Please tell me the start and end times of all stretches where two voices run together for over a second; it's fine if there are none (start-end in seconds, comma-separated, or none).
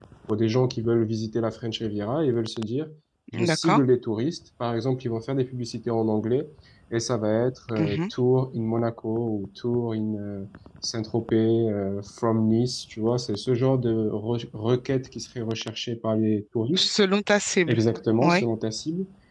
none